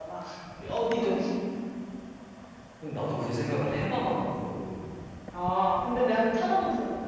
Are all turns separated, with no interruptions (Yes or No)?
Yes